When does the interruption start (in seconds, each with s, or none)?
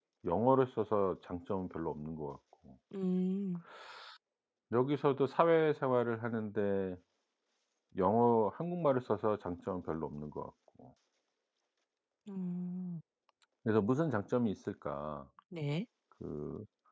none